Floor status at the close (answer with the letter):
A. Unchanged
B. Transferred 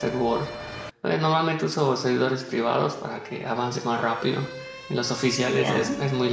A